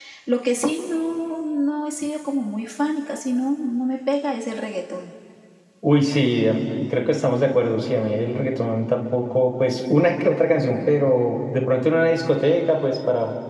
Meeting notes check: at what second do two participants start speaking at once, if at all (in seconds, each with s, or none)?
none